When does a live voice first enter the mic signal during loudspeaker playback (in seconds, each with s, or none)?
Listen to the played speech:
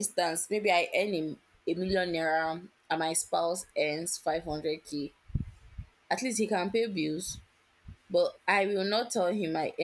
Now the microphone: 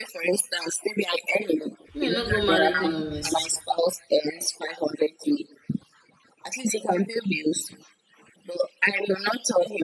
2.0 s